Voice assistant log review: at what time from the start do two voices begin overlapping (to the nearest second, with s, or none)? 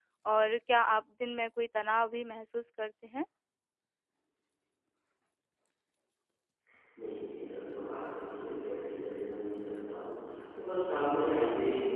none